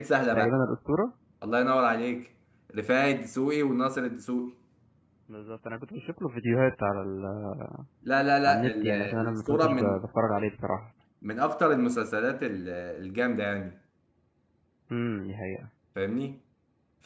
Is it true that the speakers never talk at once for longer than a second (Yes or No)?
No